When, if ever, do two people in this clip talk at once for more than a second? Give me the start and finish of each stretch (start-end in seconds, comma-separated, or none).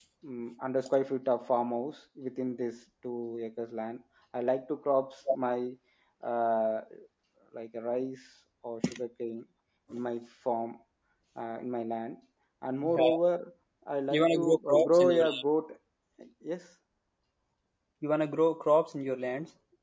14.1-15.4